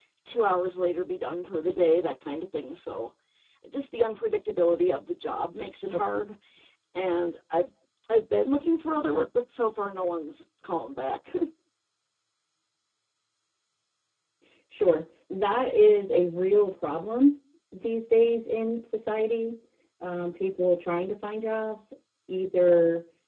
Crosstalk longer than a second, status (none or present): none